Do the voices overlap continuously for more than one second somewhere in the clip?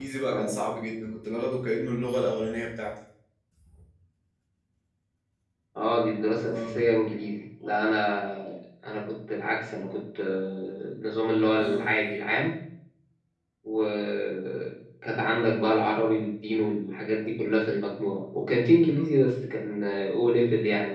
No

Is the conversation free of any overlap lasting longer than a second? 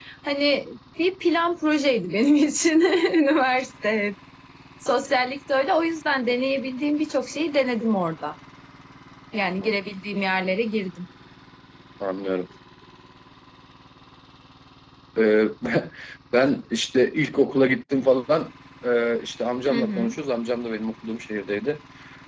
Yes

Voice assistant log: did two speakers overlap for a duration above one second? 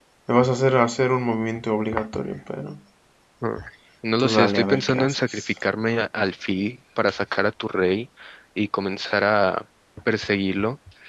Yes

